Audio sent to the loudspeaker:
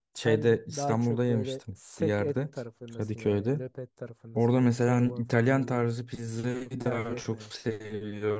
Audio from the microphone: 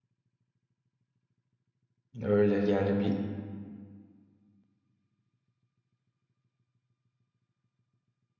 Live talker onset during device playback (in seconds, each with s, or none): 2.2 s